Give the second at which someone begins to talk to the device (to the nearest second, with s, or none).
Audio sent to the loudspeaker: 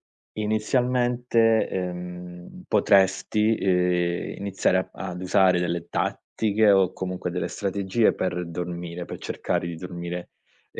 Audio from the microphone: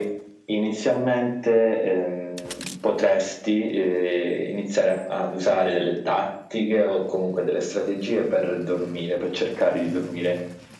none